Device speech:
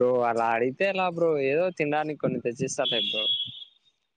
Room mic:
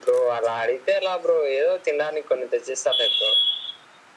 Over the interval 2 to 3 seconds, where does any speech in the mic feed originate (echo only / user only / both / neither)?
echo only